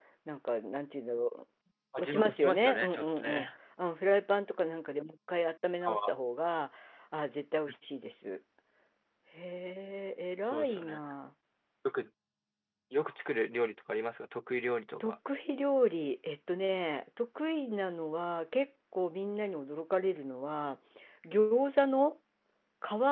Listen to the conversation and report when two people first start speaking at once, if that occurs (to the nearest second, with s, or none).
2 s